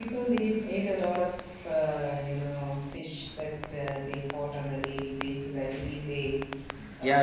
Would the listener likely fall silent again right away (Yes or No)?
No